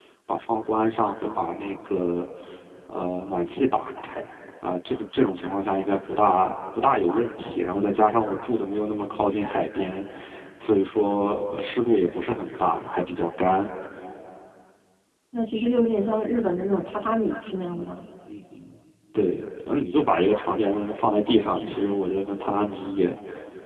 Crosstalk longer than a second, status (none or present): none